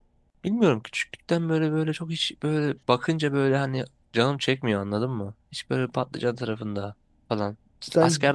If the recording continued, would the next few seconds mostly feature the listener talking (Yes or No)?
No